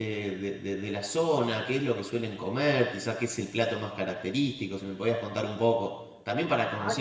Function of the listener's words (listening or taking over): taking over